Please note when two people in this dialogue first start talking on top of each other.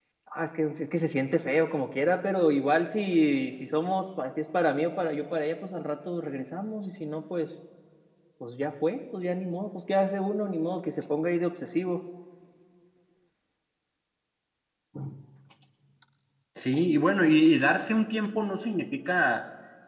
none

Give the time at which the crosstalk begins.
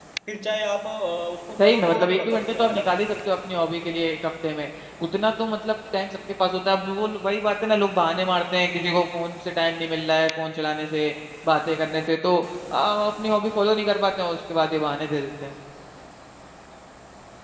1.6 s

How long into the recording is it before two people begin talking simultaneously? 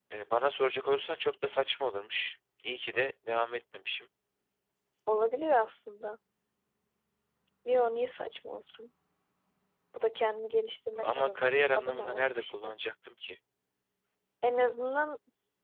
10.9 s

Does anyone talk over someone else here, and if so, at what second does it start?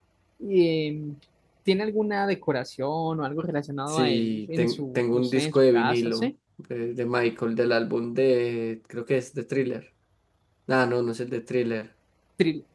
3.9 s

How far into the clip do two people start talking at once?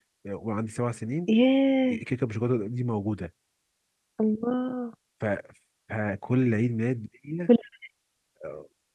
none

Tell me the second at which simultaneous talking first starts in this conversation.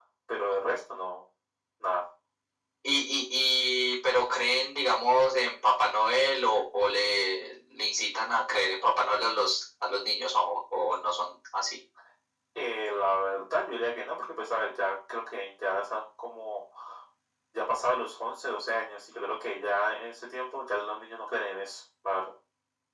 none

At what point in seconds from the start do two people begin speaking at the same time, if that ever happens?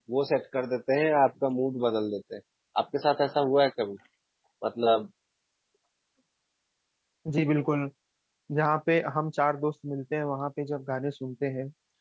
none

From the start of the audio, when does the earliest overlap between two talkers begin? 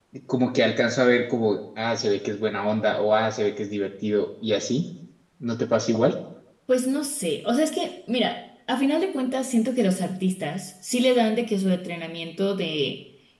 none

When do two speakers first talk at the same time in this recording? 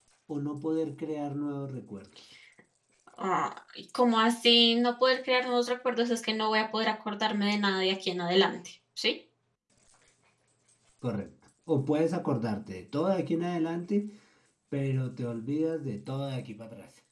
none

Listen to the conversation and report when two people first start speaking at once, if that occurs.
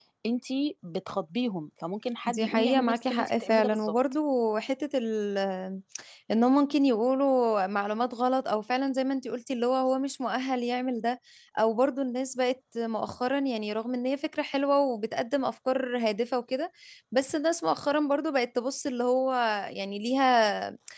2.3 s

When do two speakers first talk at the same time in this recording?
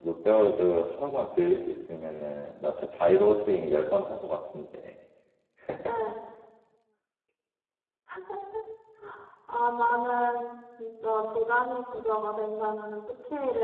none

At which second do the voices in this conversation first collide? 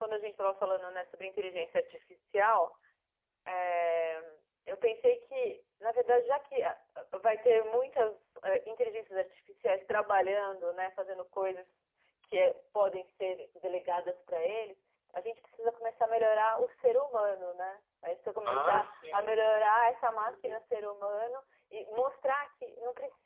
18.4 s

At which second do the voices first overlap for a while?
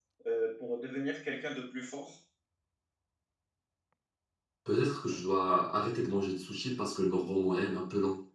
none

